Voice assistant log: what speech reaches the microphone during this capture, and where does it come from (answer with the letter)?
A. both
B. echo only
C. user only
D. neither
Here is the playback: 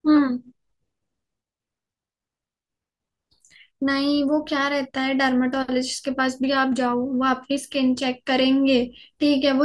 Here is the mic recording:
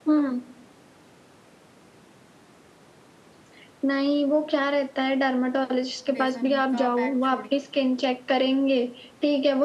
A